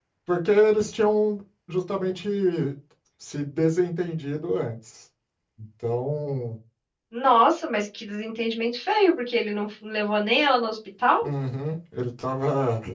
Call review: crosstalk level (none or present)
none